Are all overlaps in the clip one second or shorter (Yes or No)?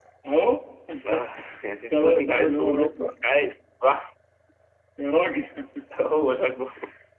No